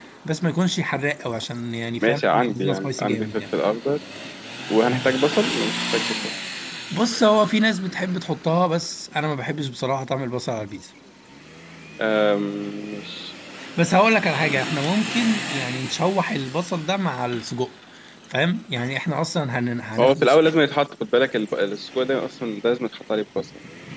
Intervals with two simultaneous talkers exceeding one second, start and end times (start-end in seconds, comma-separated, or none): 2.0-3.4